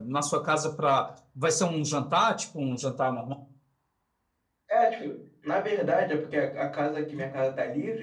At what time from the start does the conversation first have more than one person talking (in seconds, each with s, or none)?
none